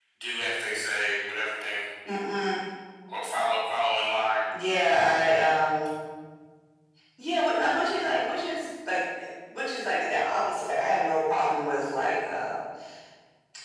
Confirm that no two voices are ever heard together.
Yes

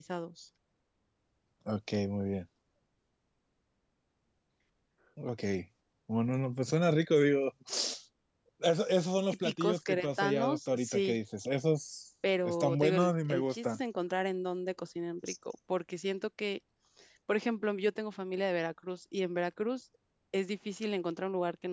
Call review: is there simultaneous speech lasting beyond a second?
Yes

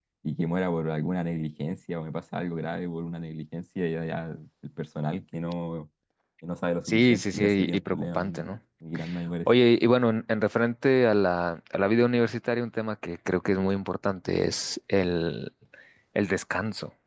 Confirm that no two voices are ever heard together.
No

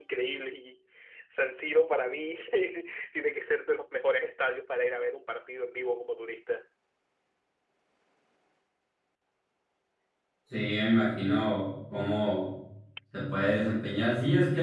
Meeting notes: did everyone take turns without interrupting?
Yes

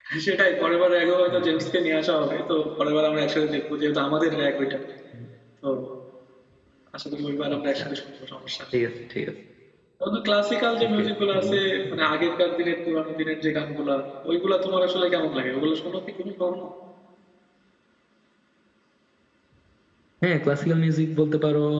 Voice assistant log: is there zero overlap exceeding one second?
No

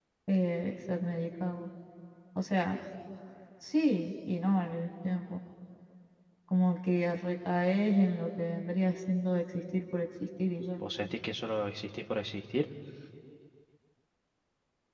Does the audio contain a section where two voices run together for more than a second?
No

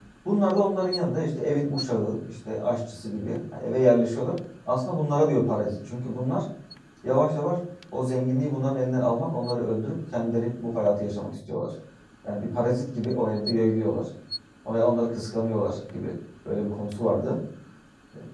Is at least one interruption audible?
No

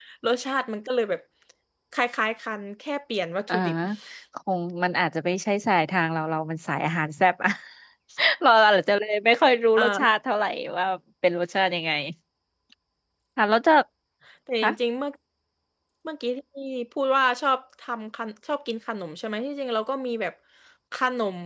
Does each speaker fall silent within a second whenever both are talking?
Yes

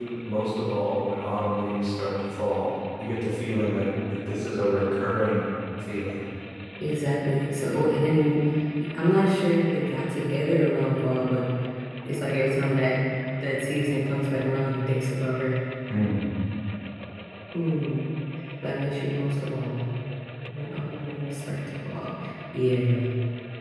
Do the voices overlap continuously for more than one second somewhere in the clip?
No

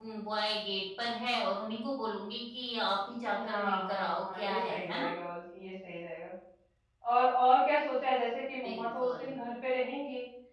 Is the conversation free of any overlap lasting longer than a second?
No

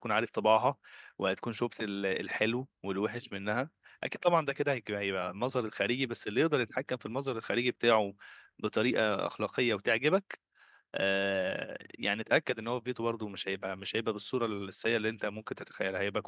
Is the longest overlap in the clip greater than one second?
No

